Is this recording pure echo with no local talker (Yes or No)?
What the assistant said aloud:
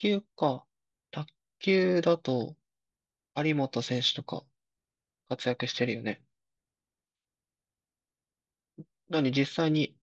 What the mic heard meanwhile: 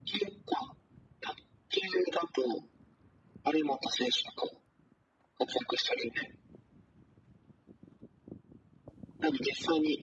Yes